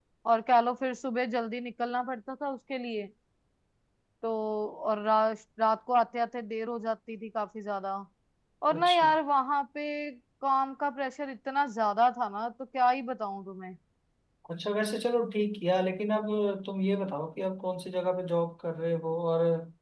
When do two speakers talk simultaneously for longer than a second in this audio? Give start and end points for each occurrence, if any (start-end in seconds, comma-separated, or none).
none